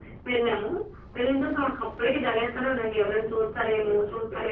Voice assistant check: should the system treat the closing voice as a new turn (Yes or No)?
Yes